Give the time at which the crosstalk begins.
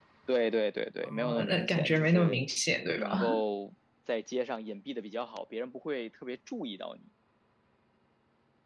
1.0 s

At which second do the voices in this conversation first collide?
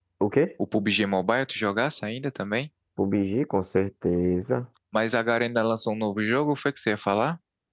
none

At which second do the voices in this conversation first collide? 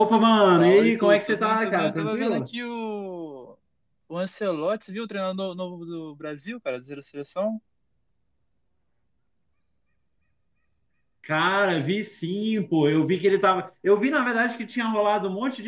0.6 s

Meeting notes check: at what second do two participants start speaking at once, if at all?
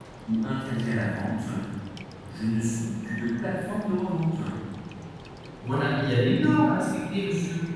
none

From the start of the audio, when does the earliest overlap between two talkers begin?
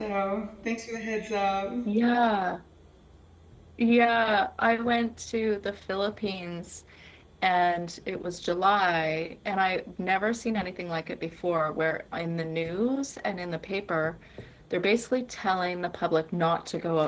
none

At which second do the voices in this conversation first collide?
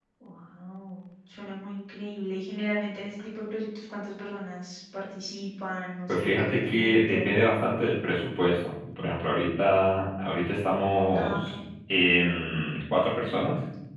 6.1 s

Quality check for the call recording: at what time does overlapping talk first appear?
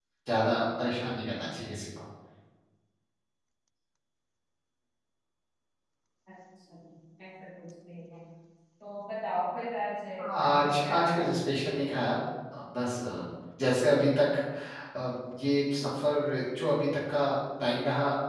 10.2 s

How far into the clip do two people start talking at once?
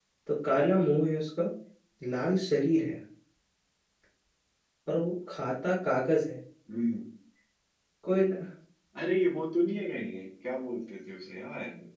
none

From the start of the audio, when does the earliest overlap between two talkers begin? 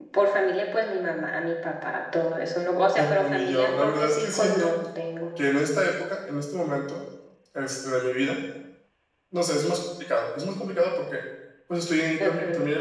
3.0 s

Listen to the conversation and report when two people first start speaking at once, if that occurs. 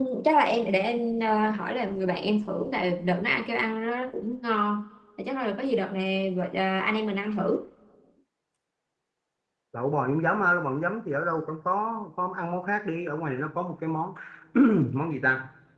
none

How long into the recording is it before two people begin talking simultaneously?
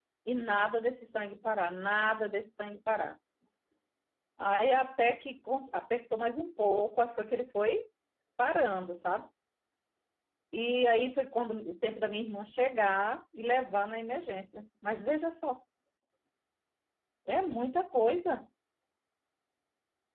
none

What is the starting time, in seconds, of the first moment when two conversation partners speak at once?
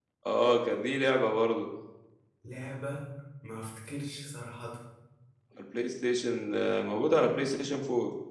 none

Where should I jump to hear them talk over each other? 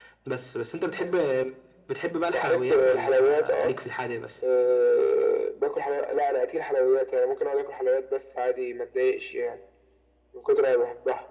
2.3 s

